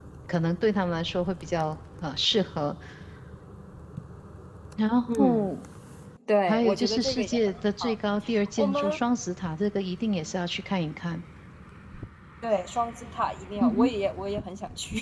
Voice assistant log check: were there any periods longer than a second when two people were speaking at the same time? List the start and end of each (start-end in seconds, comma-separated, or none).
6.5-8.0